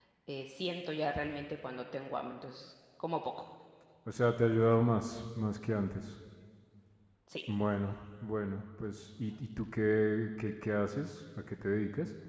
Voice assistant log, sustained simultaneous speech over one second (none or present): none